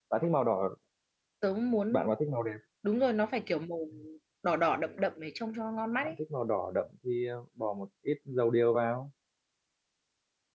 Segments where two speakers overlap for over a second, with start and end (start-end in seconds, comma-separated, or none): none